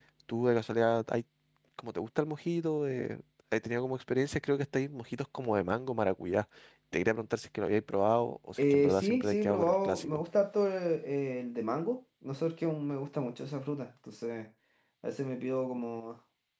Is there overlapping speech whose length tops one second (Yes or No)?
Yes